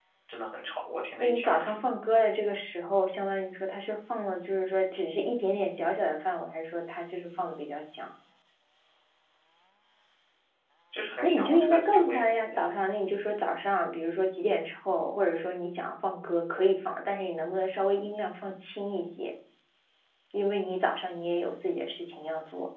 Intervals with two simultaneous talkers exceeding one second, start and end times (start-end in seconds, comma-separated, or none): 11.2-12.7